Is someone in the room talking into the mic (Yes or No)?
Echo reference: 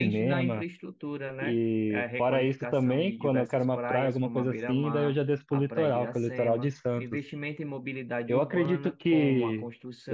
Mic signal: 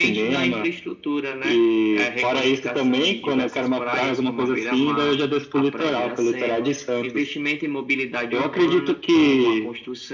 No